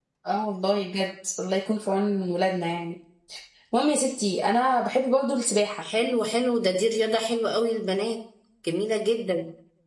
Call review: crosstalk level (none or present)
none